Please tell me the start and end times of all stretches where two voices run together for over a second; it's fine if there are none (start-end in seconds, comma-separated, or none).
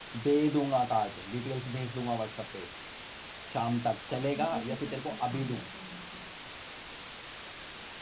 4.1-5.4